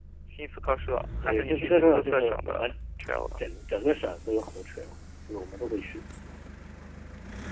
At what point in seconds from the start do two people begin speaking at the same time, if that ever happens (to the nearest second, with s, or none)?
1 s